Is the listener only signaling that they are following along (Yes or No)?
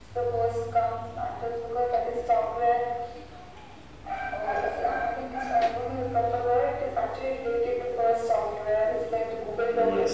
No